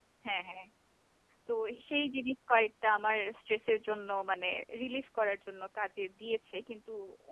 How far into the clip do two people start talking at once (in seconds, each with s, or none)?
none